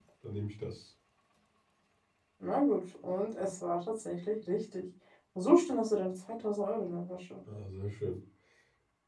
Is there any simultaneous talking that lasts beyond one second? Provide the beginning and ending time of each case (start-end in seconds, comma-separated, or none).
none